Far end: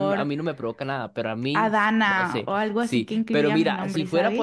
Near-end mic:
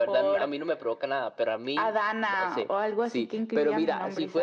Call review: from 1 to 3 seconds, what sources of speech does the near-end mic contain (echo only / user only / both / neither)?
echo only